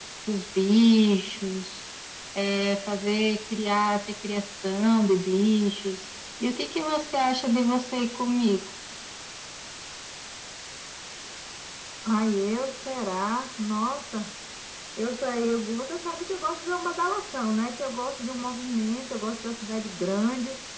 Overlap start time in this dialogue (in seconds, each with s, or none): none